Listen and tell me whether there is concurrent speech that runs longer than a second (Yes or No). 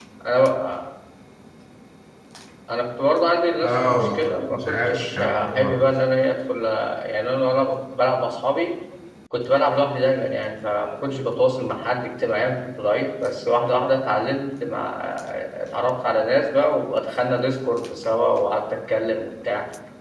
Yes